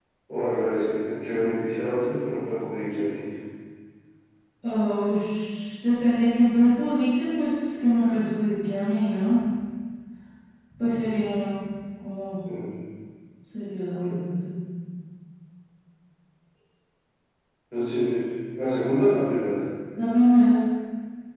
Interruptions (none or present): none